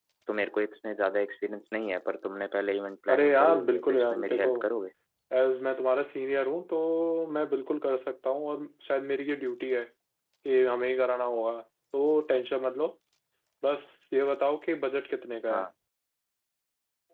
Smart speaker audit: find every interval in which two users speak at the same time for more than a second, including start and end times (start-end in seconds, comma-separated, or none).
3.1-4.5